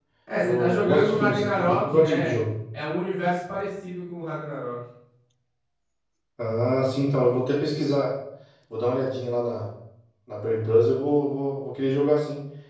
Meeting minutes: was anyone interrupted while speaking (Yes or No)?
Yes